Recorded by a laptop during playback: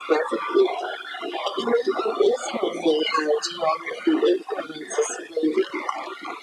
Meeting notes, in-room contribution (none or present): none